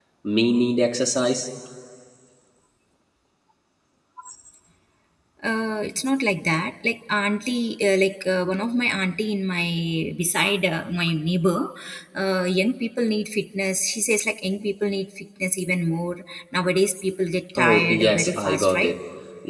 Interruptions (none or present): present